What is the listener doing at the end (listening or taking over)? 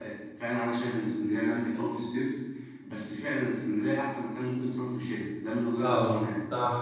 taking over